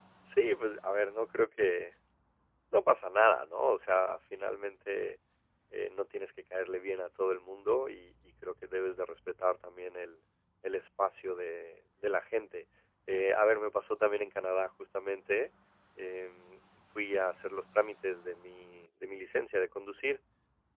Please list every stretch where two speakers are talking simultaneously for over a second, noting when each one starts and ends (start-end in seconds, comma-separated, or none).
none